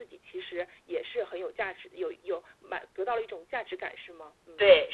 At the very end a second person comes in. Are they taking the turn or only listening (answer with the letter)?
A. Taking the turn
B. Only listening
A